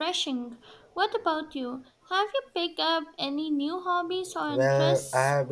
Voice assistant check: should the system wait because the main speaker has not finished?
No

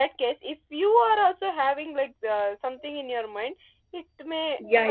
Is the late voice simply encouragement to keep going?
No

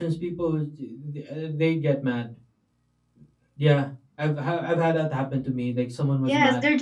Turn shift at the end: Yes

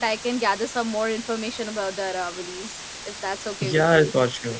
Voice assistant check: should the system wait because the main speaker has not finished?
No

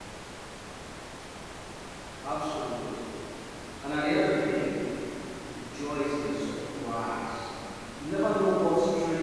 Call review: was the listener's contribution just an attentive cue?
Yes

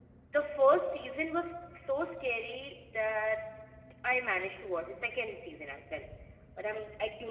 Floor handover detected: No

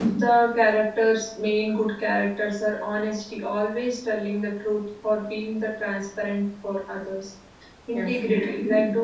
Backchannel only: Yes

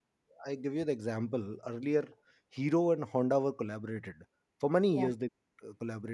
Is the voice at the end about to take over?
No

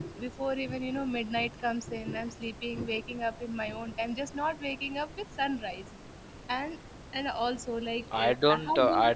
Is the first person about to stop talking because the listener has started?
Yes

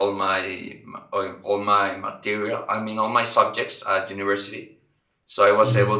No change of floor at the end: Yes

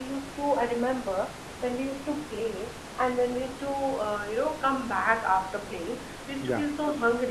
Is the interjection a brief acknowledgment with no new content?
Yes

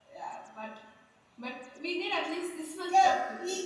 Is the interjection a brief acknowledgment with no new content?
No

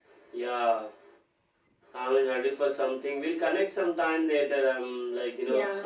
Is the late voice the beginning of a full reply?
Yes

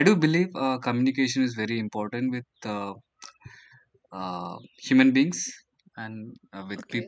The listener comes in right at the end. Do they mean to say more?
Yes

